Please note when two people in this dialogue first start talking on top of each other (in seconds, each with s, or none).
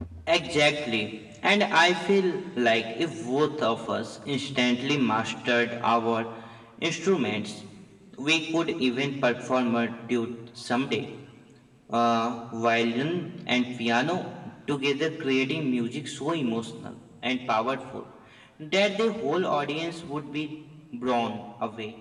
none